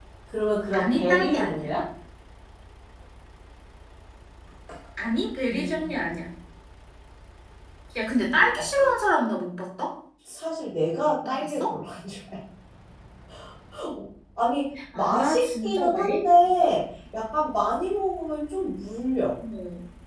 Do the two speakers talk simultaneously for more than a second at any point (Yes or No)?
Yes